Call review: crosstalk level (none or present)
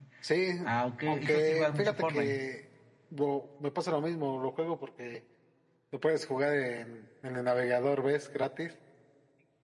present